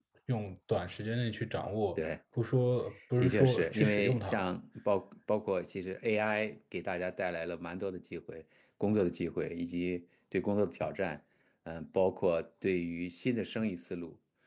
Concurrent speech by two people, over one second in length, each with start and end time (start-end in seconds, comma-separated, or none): 3.2-4.5